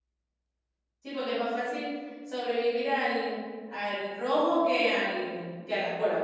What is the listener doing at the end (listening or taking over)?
taking over